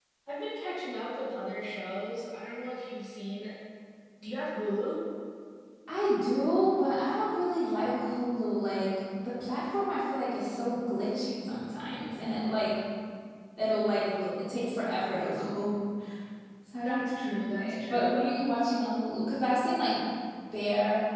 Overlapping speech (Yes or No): Yes